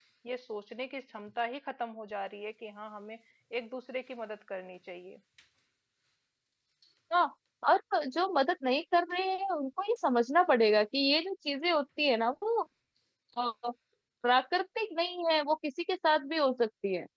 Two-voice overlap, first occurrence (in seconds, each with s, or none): none